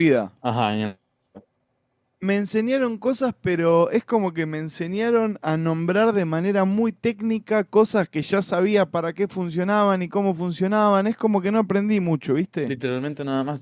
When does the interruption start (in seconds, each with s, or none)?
none